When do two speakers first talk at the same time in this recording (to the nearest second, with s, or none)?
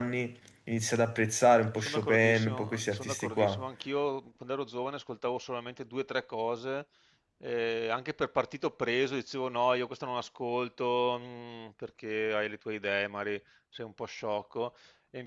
2 s